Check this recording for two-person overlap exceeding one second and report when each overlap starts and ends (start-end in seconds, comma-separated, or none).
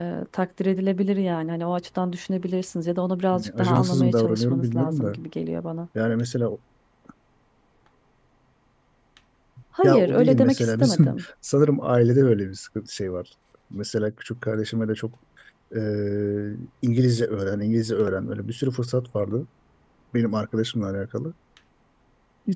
3.3-5.2, 9.8-11.2